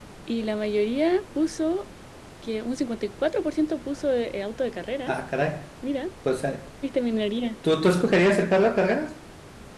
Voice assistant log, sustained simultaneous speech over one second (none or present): none